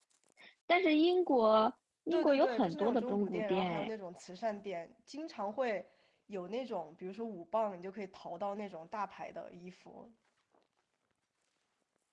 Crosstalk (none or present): present